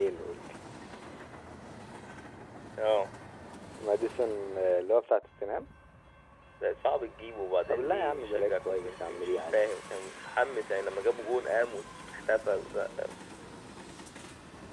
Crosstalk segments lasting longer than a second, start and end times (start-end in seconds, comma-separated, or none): 7.7-9.7